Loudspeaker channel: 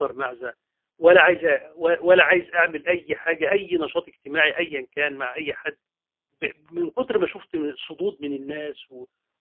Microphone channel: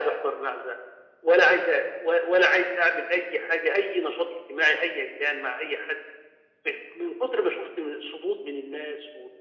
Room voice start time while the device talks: none

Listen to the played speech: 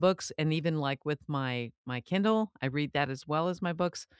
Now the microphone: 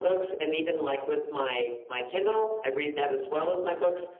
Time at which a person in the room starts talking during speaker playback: none

